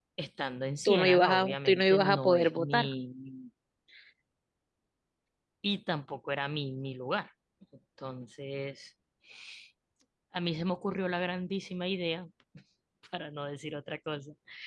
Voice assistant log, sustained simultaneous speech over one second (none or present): present